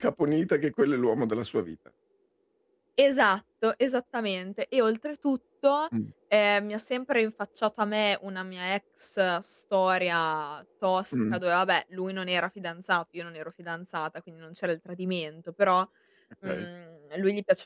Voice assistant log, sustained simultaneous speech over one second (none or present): none